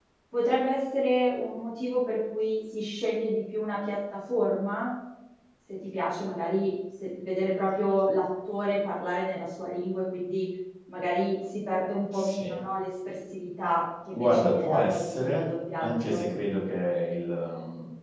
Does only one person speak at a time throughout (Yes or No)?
No